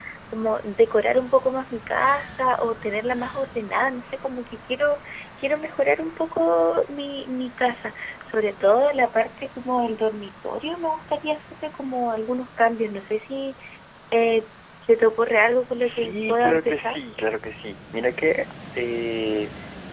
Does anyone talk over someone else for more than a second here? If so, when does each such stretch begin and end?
15.8-17.0

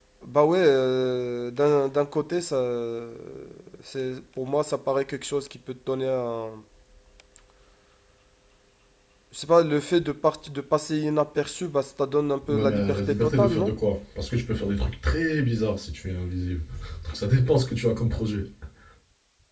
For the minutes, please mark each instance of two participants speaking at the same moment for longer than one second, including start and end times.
12.5-13.7

